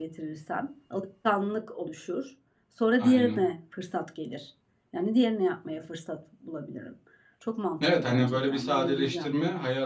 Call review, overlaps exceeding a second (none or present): present